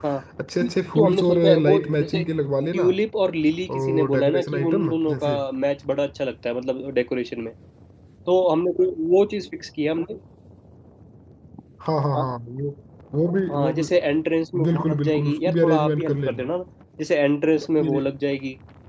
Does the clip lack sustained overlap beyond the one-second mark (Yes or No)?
No